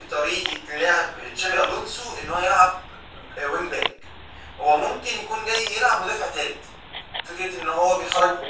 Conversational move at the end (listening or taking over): listening